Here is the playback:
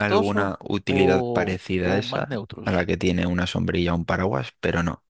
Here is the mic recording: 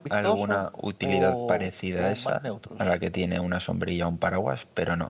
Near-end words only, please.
none

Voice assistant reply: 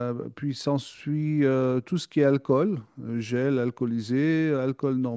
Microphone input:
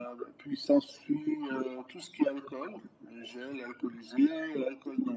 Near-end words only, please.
none

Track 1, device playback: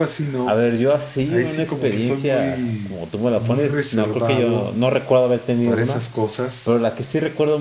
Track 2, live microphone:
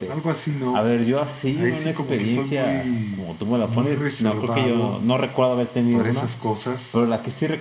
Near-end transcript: none

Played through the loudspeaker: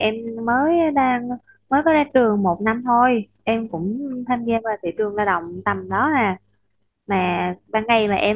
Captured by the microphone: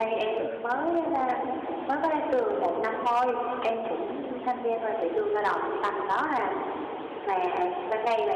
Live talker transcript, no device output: à,

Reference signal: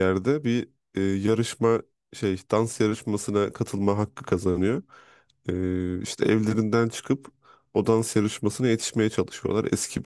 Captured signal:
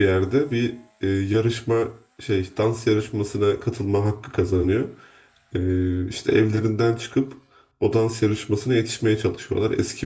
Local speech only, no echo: none

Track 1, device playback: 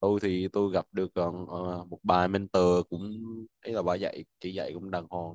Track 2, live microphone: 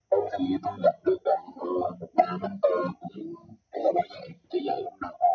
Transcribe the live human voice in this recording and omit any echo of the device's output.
none

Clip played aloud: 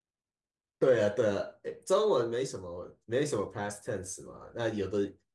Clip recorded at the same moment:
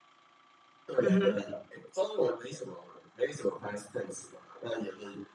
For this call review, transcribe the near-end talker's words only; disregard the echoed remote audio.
嗯哼

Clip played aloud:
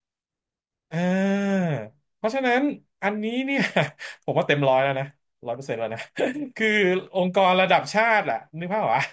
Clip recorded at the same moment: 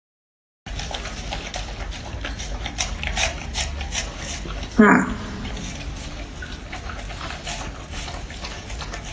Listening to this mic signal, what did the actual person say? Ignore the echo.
ค่ะ

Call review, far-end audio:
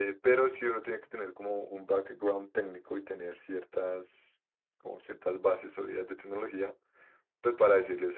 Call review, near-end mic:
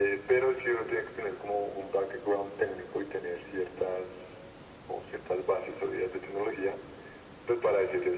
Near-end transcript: none

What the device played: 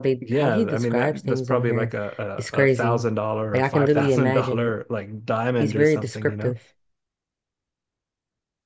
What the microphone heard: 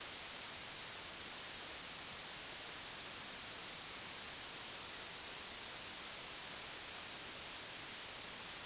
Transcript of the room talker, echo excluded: none

